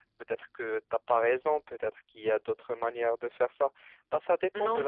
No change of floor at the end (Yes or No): No